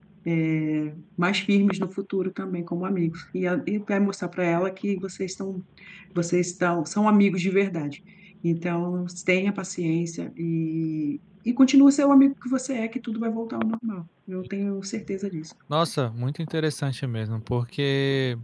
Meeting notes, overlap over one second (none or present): none